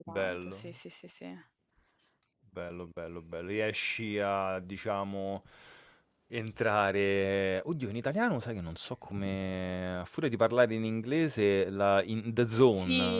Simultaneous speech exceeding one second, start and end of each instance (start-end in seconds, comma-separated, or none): none